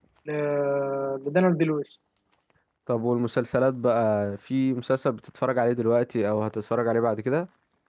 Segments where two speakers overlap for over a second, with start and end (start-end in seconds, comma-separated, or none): none